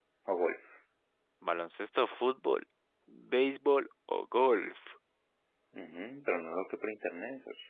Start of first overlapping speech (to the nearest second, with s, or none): none